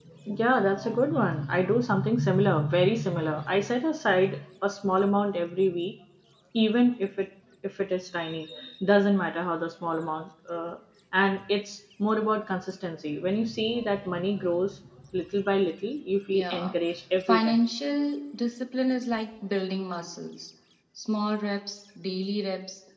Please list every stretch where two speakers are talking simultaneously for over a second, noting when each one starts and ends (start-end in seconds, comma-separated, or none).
none